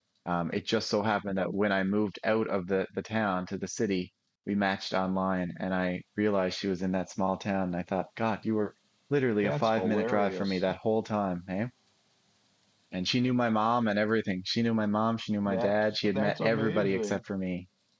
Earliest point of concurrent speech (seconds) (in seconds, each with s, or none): 9.4 s